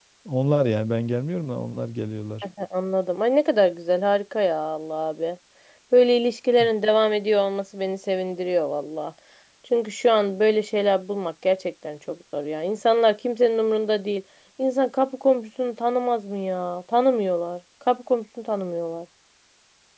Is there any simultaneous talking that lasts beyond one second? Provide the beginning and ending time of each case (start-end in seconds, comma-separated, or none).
none